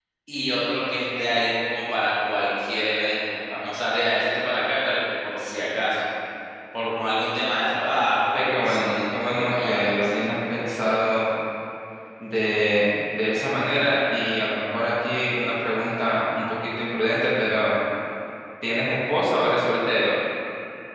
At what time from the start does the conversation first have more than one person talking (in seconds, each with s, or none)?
8.3 s